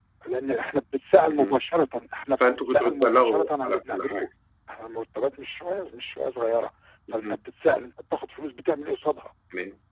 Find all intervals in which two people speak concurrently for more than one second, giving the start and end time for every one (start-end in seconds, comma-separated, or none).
2.6-4.3